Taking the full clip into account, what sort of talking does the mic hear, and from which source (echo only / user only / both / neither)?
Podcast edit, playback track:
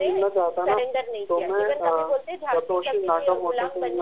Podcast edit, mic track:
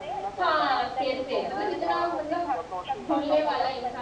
both